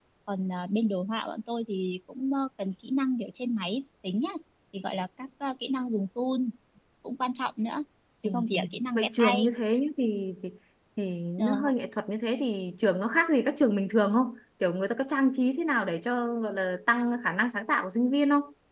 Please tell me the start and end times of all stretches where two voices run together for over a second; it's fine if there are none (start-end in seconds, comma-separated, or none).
8.2-9.5